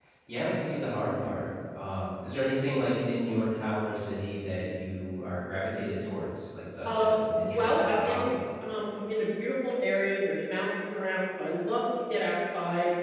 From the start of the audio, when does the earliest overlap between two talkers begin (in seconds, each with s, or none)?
6.8 s